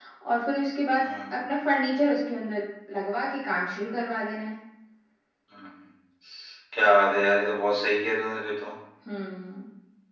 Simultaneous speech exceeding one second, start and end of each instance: none

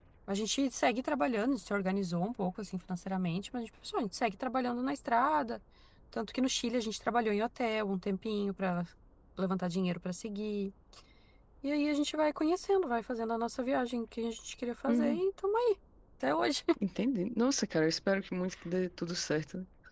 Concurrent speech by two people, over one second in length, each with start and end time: none

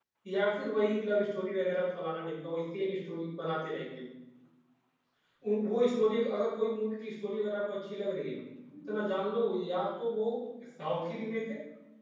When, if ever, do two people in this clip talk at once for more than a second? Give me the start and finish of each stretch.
none

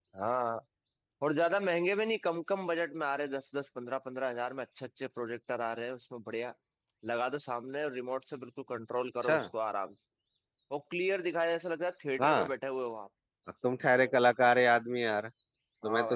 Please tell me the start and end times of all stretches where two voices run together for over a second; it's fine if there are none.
none

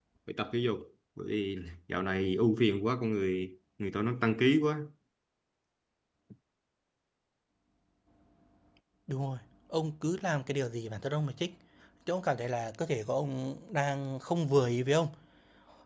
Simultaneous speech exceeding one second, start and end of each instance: none

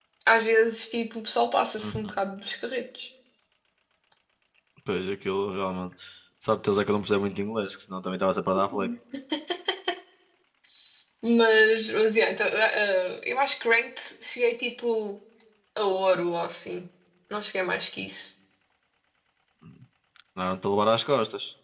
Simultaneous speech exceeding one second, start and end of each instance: none

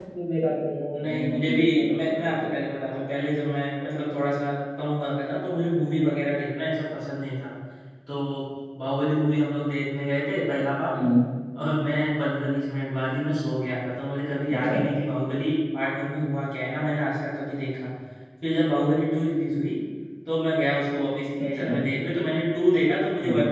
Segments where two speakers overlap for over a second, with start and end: 0.9-2.5

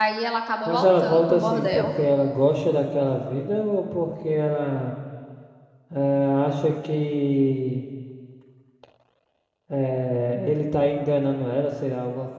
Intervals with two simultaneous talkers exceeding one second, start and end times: 0.7-1.9

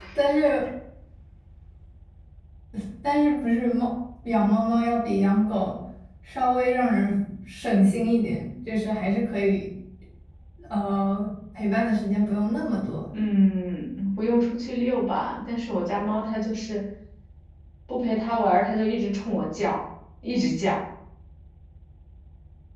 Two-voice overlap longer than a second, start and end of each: none

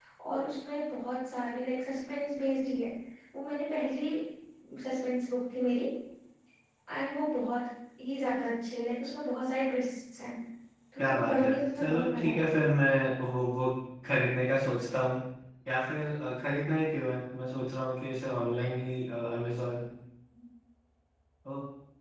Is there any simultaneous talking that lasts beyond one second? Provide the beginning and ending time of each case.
11.0-12.5

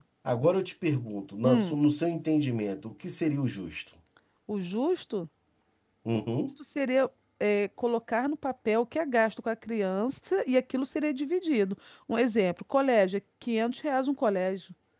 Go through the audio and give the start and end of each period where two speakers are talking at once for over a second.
none

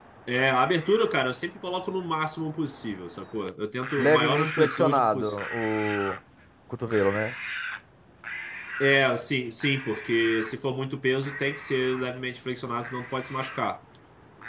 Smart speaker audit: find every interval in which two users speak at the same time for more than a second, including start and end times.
4.0-5.3

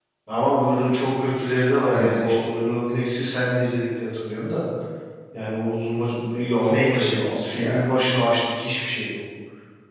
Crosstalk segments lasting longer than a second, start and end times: 6.6-7.9

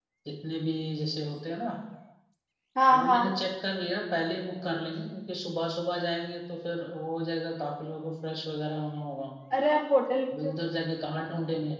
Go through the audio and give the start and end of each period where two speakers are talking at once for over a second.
none

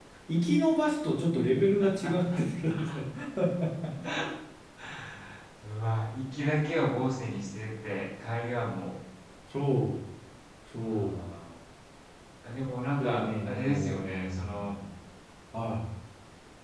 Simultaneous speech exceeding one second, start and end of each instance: 13.0-14.6

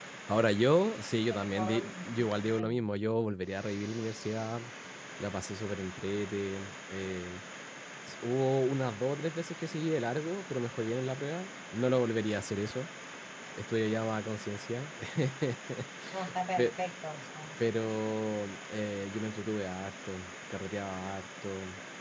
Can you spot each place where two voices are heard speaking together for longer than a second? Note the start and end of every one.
1.4-2.8

